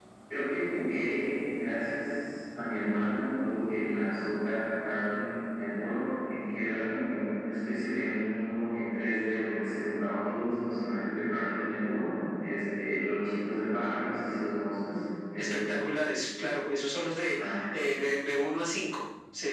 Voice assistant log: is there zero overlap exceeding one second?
Yes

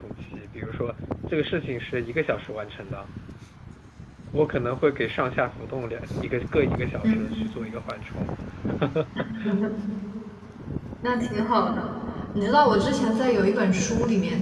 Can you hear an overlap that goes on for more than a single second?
No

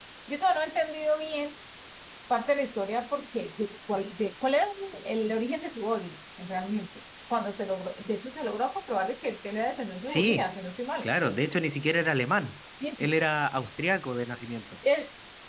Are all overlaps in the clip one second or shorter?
Yes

